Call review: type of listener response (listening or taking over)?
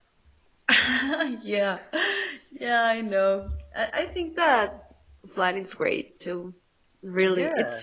listening